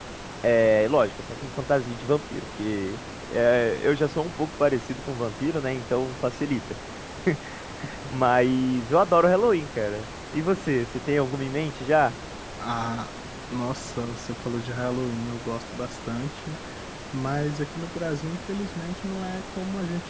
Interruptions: none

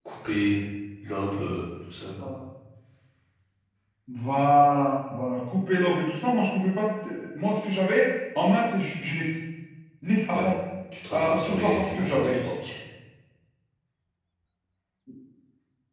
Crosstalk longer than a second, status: present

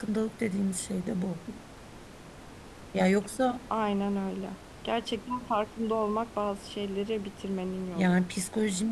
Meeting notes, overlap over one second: none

